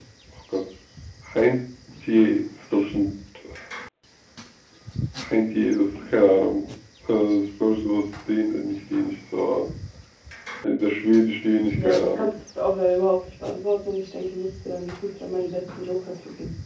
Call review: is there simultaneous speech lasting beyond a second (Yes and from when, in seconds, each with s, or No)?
No